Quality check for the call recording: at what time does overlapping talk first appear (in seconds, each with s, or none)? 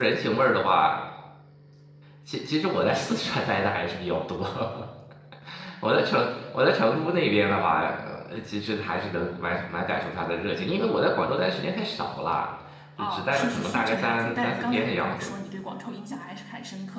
13.0 s